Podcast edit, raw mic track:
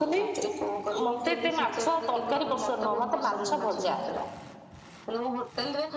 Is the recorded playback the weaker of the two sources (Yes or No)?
Yes